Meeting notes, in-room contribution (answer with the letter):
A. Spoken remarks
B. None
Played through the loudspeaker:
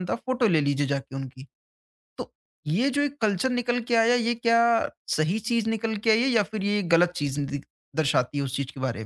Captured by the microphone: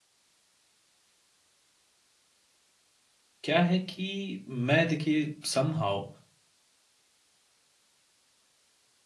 A